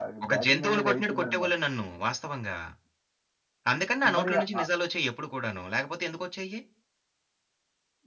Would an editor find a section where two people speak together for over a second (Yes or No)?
Yes